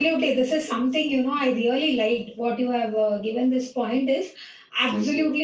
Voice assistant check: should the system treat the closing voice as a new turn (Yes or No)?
No